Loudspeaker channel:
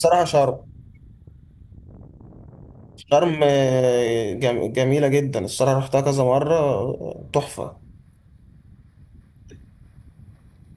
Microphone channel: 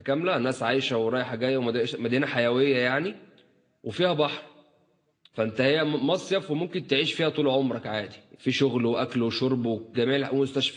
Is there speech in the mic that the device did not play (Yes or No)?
Yes